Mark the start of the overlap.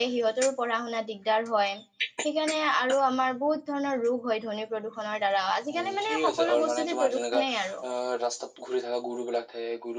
5.7 s

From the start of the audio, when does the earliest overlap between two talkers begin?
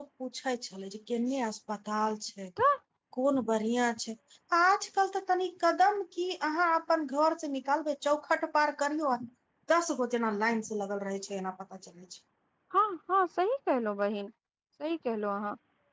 none

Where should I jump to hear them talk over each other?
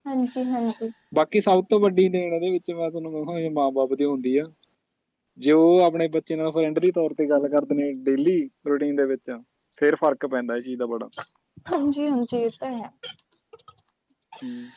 none

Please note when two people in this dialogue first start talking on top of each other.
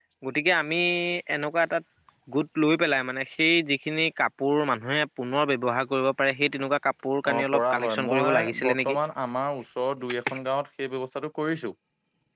7.2 s

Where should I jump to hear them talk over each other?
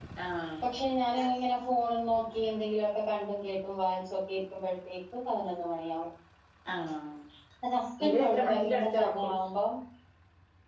8.1 s

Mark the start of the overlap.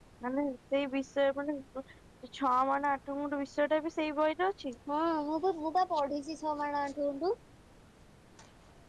none

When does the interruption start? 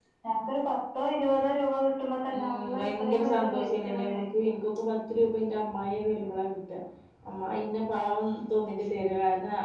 2.3 s

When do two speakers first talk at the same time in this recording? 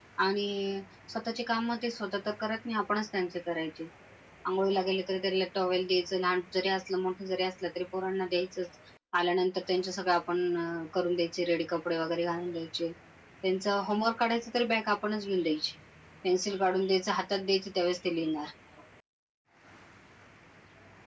none

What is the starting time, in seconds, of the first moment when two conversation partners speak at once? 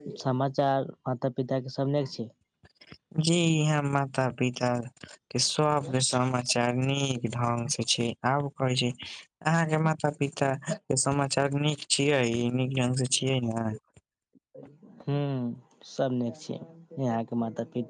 none

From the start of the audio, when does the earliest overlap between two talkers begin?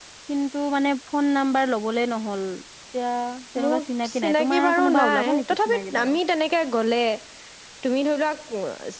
3.6 s

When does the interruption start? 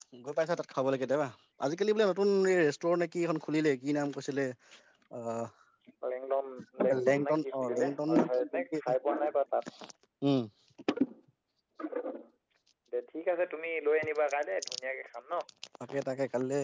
7.0 s

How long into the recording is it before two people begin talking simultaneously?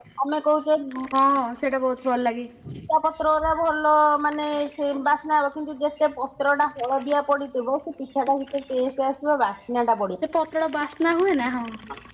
none

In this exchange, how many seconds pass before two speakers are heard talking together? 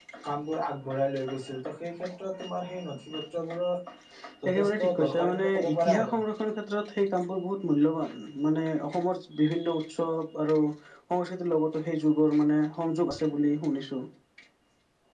4.5 s

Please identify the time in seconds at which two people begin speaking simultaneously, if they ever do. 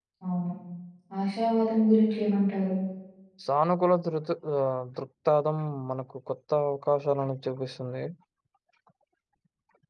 none

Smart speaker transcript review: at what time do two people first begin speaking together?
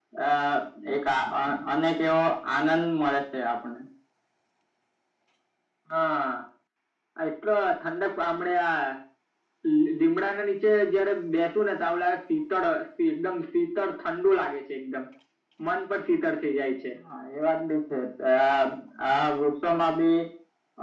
none

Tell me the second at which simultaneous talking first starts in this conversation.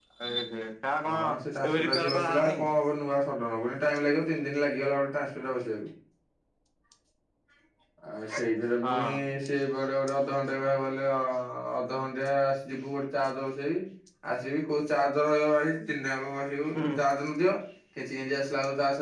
1.1 s

